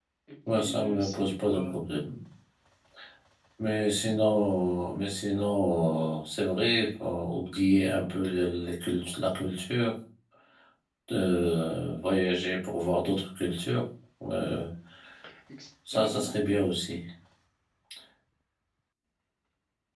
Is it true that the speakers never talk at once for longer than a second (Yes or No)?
No